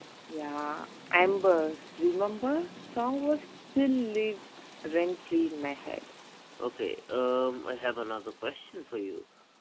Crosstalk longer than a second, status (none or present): none